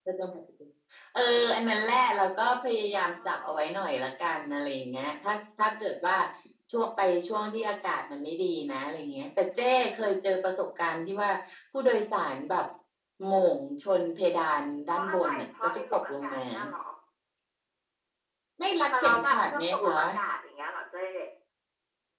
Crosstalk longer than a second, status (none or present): present